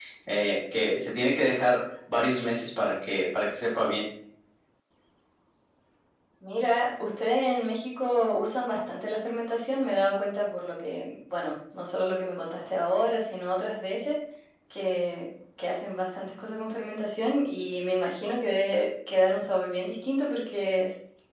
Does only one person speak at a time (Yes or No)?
Yes